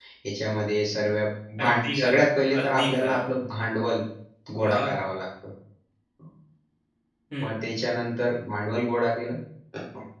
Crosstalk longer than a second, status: present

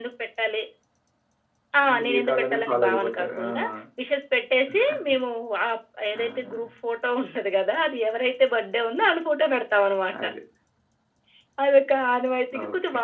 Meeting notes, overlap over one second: present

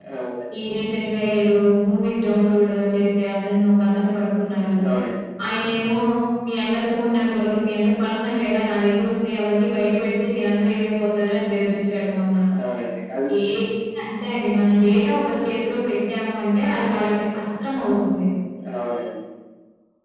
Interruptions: none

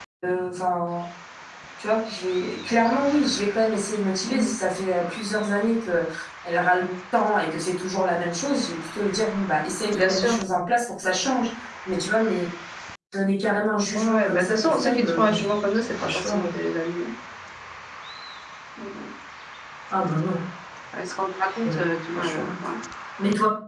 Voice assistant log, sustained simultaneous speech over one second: present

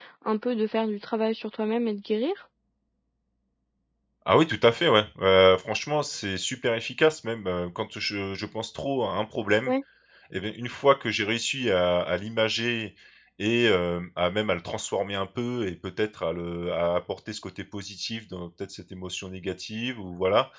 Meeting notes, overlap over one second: none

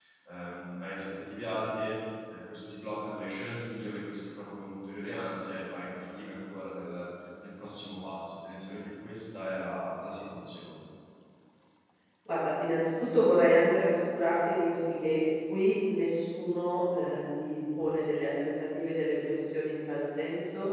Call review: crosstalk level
none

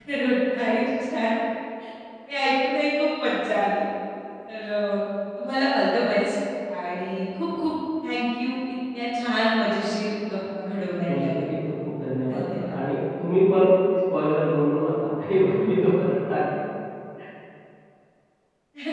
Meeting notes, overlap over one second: none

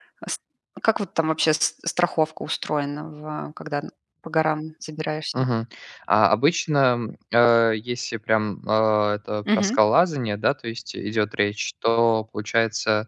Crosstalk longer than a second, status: none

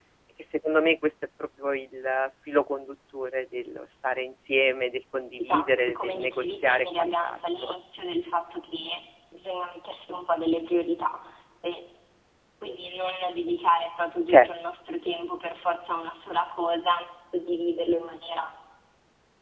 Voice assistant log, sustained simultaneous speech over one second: present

